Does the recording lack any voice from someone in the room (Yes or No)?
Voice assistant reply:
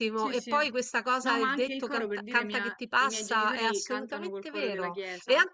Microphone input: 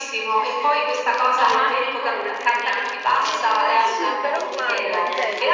No